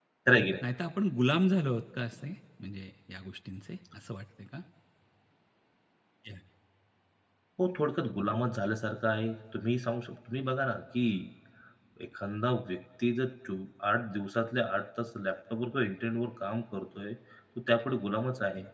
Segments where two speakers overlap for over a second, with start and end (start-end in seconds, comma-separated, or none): none